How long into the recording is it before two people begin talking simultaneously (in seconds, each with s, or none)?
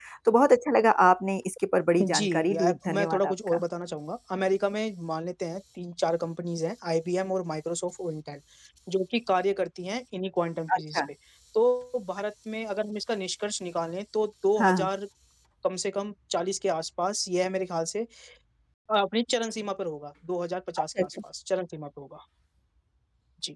2.0 s